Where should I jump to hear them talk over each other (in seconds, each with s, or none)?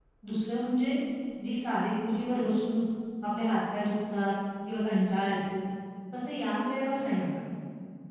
none